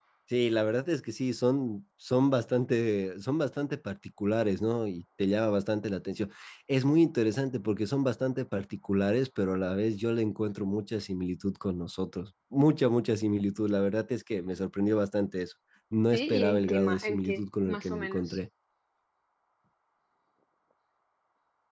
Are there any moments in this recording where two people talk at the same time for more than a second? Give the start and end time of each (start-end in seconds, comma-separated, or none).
16.1-18.4